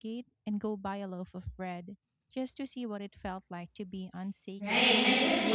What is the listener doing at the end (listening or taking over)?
taking over